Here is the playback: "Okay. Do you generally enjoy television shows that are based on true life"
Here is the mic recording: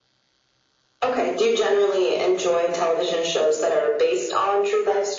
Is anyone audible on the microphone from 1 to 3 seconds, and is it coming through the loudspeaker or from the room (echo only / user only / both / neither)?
echo only